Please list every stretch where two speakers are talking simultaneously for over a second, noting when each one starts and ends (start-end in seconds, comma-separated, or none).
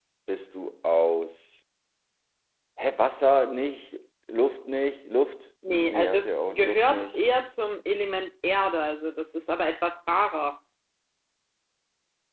5.6-7.2